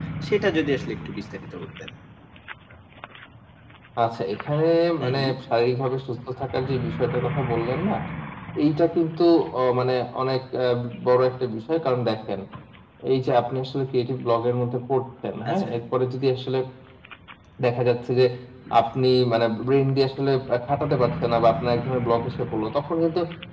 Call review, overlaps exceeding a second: none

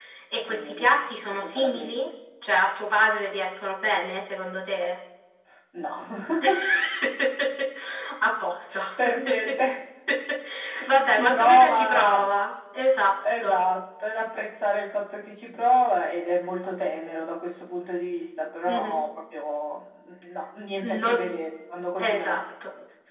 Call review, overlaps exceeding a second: present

